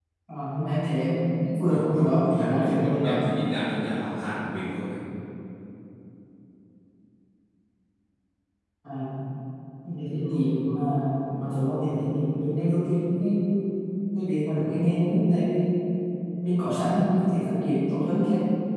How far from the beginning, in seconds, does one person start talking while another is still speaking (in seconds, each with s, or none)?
1.7 s